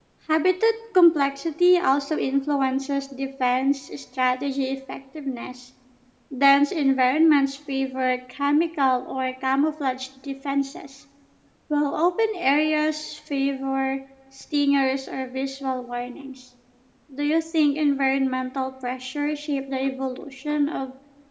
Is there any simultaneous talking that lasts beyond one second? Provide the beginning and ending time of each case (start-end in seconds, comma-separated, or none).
none